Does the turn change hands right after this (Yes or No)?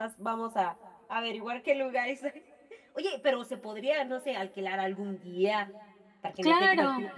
Yes